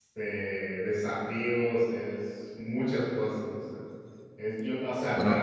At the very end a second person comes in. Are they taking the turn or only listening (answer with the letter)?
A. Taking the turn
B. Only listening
B